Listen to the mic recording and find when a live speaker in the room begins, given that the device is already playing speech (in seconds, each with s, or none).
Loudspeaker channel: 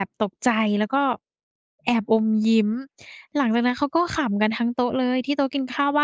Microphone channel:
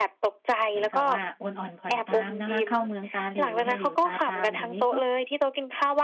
0.7 s